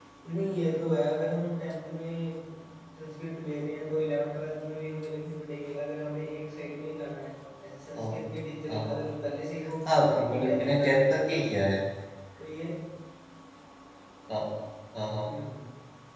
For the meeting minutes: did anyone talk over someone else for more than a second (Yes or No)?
Yes